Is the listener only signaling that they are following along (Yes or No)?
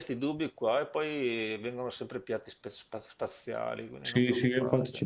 No